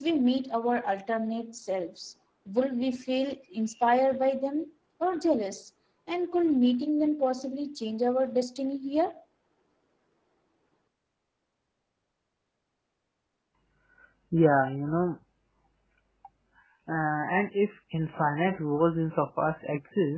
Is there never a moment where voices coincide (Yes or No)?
Yes